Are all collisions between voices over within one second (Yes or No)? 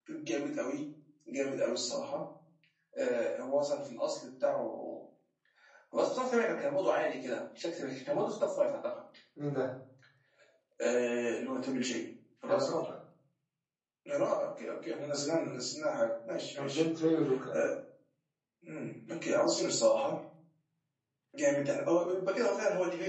Yes